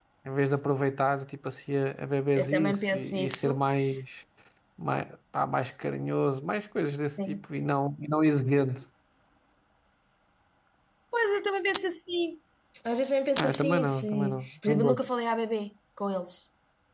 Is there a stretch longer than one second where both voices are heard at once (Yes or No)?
Yes